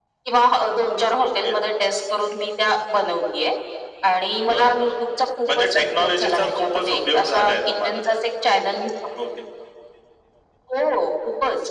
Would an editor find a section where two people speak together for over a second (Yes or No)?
Yes